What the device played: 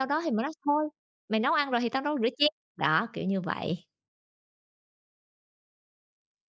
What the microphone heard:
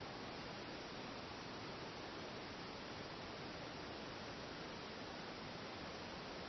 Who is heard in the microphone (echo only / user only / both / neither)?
neither